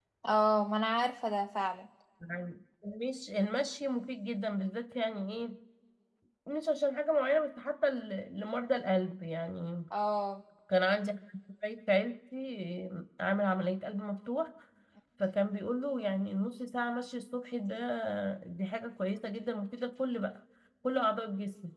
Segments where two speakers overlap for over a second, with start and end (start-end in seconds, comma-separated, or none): none